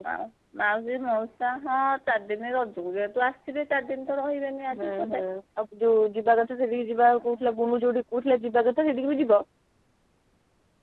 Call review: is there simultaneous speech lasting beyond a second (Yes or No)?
No